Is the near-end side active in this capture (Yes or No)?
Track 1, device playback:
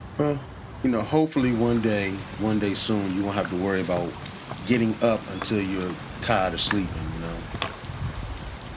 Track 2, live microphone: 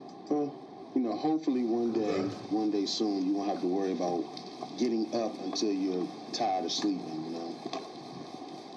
Yes